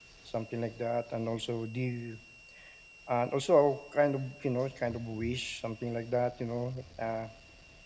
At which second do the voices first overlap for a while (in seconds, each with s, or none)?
none